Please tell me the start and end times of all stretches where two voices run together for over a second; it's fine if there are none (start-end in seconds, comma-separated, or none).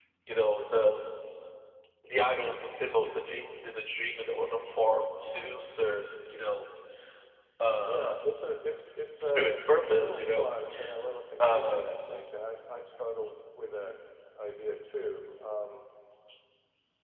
9.2-10.5